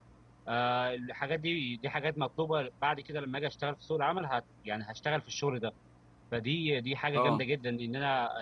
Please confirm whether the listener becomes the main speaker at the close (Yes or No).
No